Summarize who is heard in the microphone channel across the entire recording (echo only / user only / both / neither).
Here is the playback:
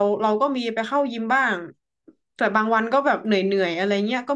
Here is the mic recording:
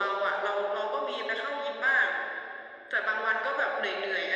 echo only